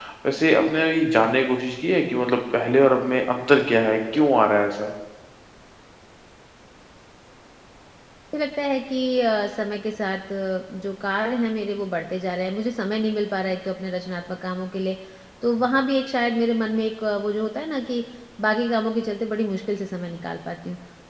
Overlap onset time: none

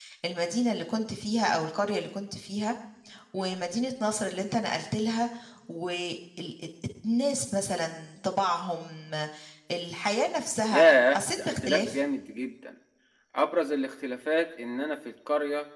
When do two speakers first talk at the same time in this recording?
11 s

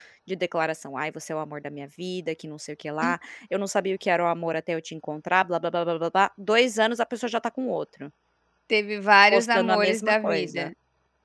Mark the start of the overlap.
9 s

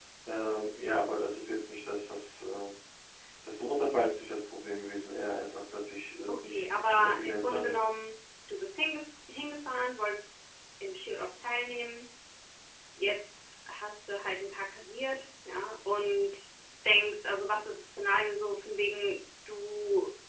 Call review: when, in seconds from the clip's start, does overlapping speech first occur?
6 s

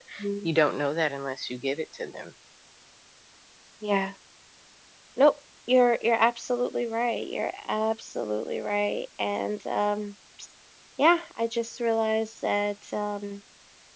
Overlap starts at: none

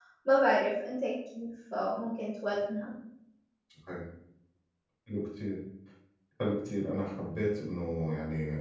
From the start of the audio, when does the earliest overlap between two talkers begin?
none

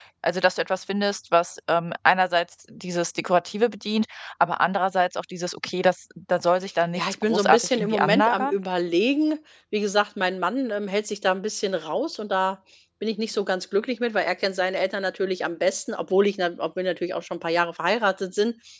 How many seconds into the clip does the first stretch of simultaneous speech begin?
7 s

